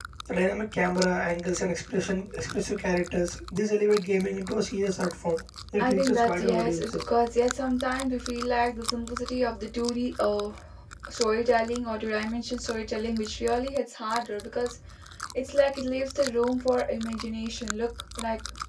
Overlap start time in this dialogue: 5.8 s

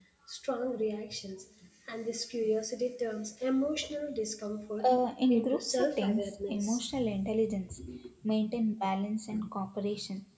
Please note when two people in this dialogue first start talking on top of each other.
5.3 s

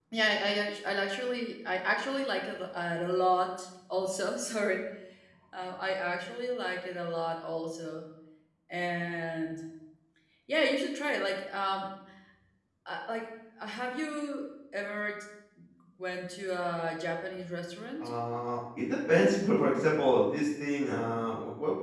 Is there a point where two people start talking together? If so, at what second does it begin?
none

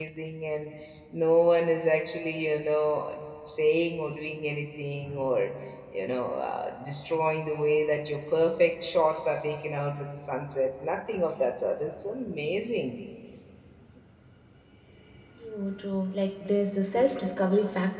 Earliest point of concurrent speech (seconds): none

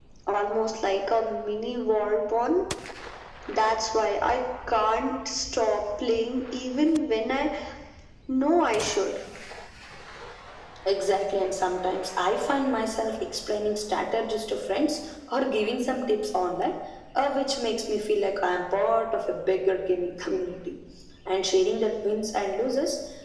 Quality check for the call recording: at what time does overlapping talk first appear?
none

